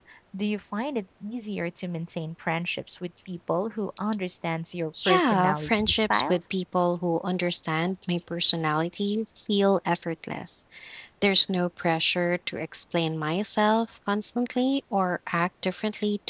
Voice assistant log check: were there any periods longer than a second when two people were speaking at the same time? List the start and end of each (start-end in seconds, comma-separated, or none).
5.0-6.4